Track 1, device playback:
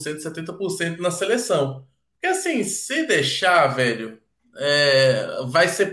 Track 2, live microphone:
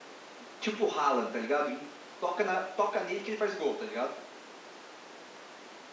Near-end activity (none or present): present